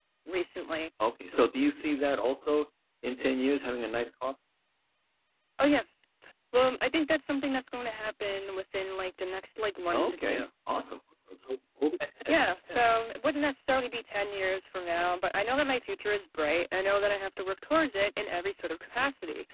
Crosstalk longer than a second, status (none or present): none